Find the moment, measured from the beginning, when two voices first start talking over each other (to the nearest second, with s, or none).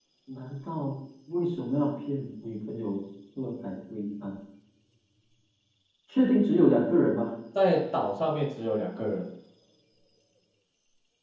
none